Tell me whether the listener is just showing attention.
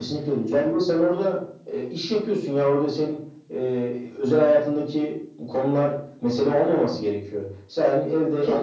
Yes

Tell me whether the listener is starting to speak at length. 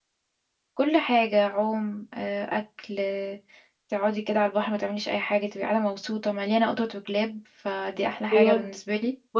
Yes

